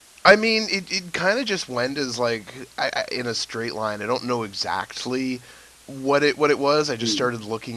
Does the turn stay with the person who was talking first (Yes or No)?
Yes